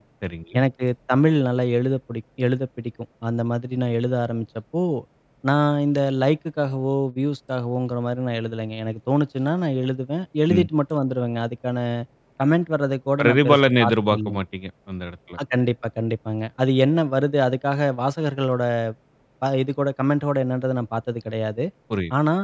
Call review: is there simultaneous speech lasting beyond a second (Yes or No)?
Yes